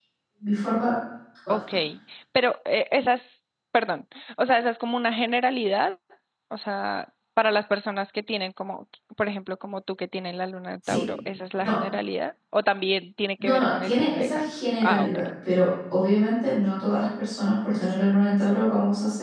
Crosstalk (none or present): present